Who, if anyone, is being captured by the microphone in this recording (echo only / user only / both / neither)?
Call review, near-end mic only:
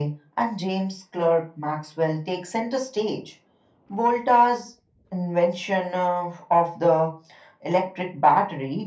echo only